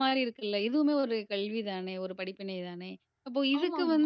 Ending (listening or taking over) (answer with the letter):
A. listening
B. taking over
A